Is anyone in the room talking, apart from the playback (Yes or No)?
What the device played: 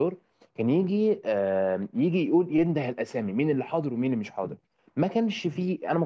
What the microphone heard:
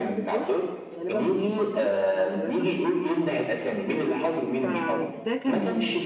Yes